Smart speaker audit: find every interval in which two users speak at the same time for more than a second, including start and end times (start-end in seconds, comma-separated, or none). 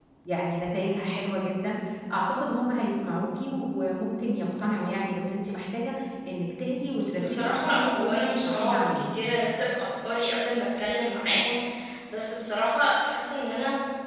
7.2-9.1